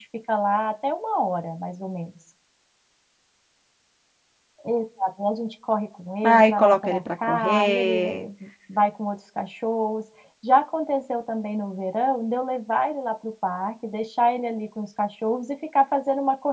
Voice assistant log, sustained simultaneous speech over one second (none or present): present